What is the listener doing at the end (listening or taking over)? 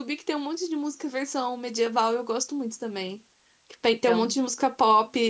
listening